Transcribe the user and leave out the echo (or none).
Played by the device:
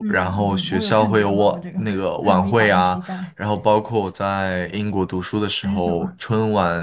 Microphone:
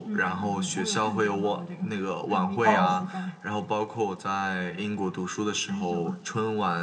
哦。